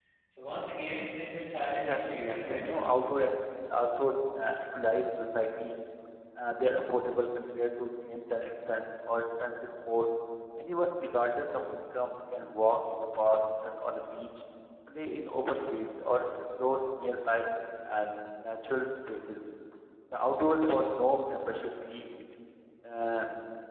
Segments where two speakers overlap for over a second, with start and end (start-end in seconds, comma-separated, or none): 1.6-2.9